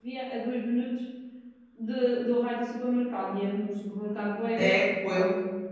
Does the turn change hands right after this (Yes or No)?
Yes